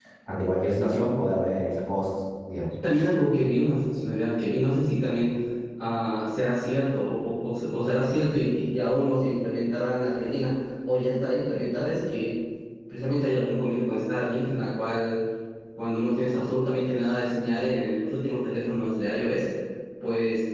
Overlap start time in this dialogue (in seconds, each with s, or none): none